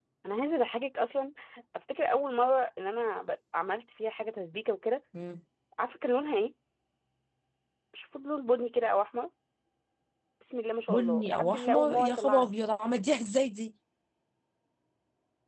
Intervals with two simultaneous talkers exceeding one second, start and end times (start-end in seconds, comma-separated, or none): 10.9-12.5